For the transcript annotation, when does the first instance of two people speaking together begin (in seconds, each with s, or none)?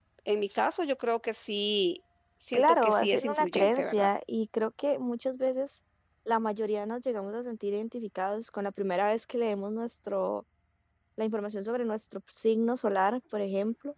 2.5 s